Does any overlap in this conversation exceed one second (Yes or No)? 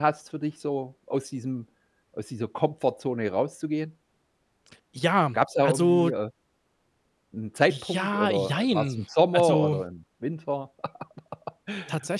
Yes